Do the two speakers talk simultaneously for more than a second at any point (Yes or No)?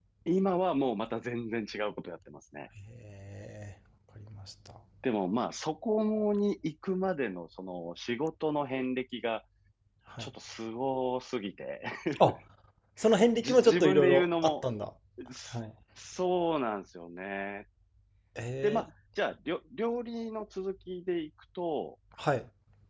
Yes